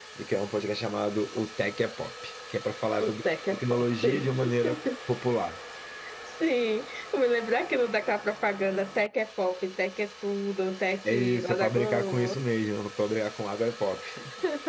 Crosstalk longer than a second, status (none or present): present